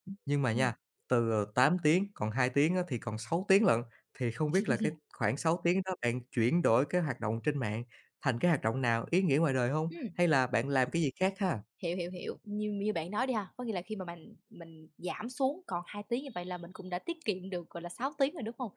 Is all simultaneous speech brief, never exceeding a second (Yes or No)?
Yes